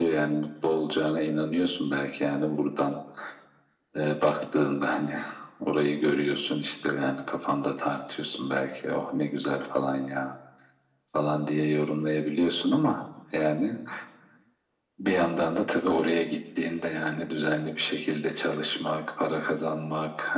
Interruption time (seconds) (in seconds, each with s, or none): none